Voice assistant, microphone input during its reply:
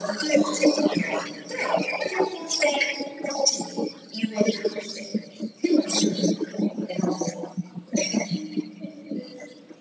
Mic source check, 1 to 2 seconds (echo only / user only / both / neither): echo only